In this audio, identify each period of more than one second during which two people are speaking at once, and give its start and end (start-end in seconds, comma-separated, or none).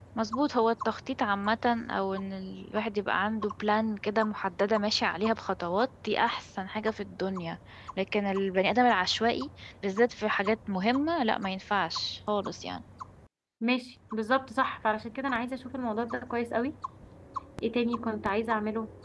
none